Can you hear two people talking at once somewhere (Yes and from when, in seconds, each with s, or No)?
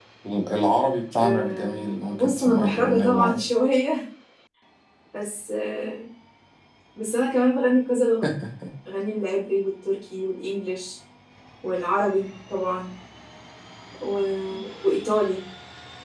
Yes, from 1.2 s